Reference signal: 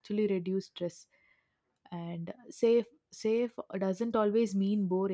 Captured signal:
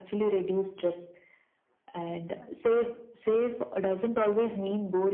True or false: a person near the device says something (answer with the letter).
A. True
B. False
B